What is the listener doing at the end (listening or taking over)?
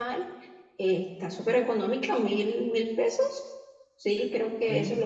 taking over